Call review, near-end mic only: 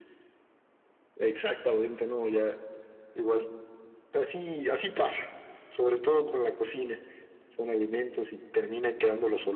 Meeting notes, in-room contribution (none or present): none